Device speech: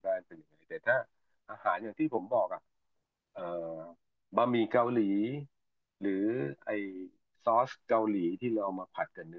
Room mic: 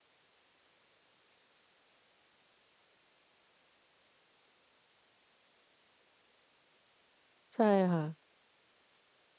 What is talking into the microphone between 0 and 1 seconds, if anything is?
neither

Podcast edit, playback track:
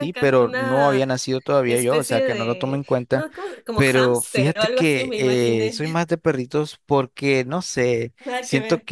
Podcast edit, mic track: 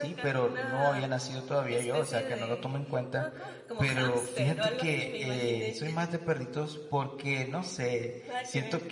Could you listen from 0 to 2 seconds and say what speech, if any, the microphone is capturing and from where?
echo only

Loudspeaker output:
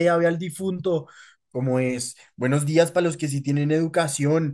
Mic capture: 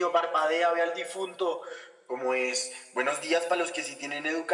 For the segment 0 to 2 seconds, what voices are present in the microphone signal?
echo only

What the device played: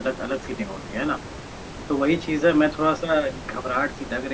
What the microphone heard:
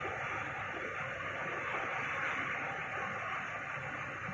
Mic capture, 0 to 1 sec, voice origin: neither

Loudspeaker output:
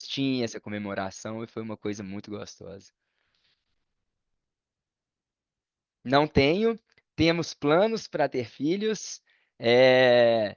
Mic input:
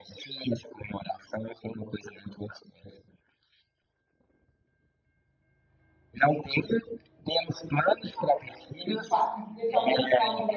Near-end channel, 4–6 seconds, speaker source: neither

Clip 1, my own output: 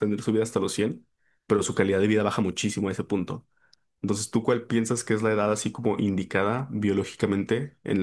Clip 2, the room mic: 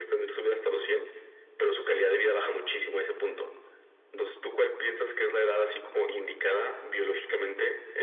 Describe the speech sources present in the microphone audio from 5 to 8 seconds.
echo only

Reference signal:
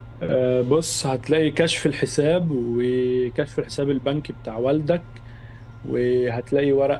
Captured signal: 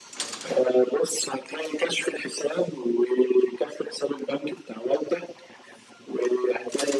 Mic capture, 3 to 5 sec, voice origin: echo only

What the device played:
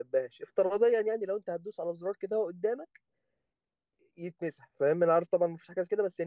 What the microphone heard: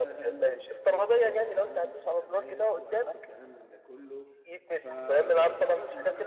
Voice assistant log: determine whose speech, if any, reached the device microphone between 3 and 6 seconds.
both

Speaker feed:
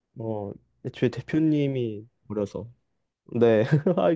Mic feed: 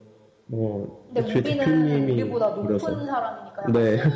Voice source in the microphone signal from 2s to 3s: both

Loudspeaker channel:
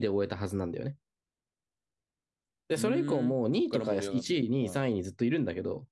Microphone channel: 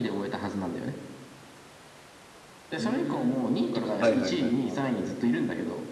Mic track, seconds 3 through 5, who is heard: both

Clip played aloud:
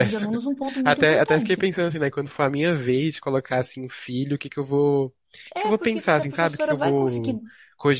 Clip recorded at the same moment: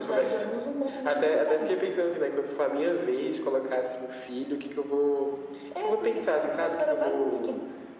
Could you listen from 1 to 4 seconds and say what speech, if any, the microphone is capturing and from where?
echo only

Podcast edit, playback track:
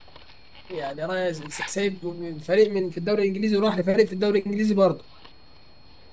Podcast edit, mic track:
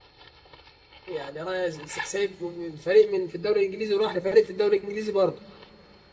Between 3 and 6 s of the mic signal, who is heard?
echo only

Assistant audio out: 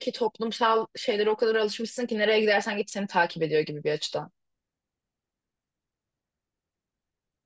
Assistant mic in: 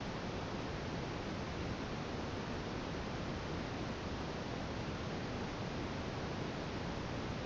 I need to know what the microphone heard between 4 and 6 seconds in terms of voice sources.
neither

